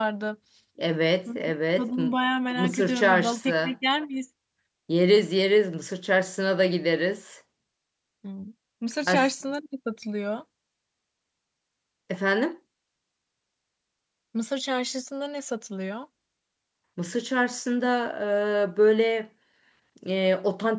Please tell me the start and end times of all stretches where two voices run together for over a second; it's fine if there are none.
2.6-3.8

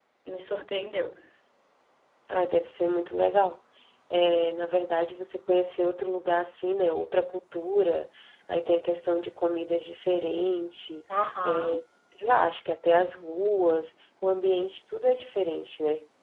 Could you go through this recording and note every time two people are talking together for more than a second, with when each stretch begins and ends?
none

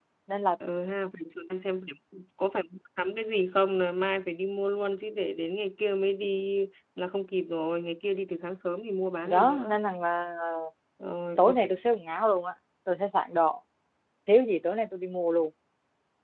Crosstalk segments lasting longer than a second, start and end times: none

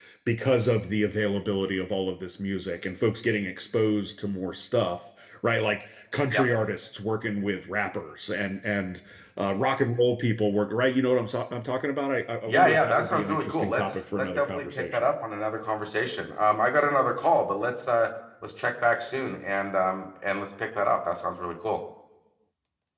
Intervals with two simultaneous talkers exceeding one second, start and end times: 12.5-15.0

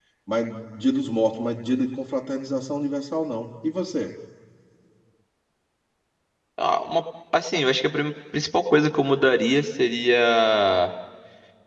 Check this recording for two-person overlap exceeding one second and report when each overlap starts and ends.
none

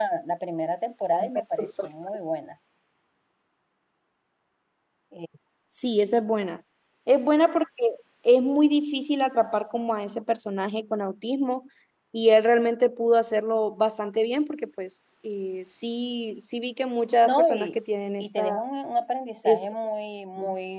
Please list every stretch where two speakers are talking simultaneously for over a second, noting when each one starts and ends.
none

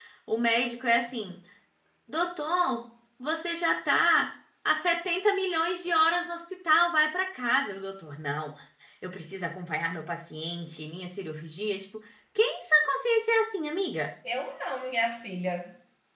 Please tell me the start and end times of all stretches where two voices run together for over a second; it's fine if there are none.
none

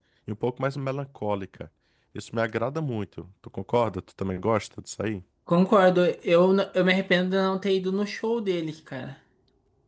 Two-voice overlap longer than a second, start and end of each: none

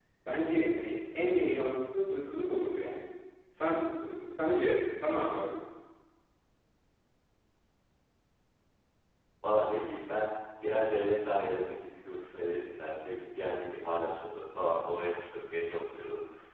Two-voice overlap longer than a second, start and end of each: none

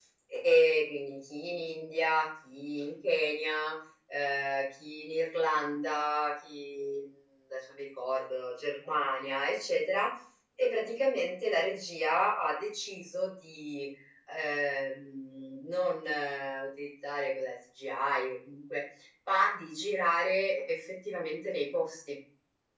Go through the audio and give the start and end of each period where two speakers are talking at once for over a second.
none

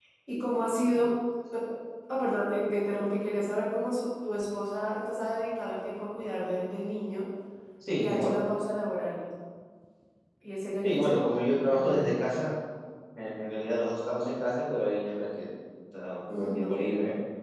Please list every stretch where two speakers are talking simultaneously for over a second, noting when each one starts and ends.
10.8-12.1

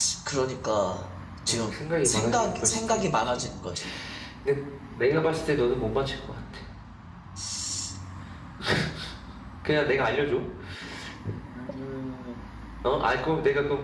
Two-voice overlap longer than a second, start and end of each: 1.5-3.5

